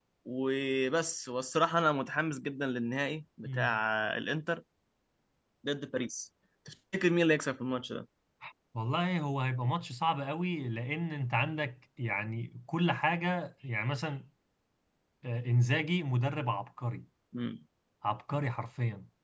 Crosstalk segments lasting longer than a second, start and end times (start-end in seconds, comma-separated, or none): none